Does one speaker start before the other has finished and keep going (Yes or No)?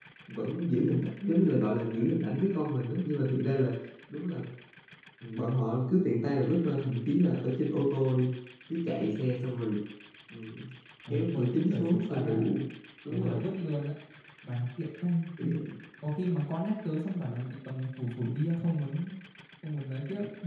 Yes